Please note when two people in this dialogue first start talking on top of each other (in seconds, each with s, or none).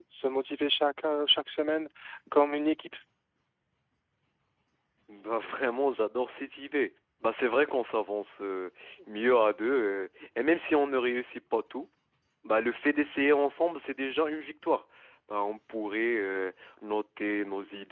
none